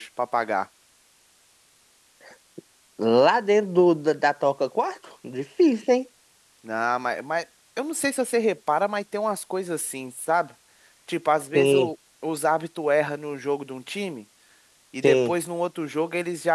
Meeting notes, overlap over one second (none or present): none